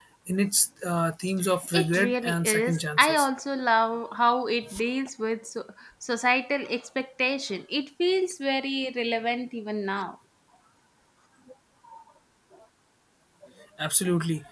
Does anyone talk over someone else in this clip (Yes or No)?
Yes